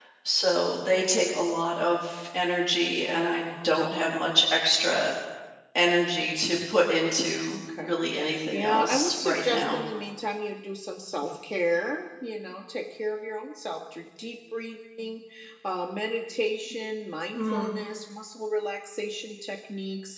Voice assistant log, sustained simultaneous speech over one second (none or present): present